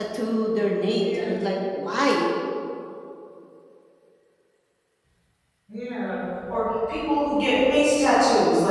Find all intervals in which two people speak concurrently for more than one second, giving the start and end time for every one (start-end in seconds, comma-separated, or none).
none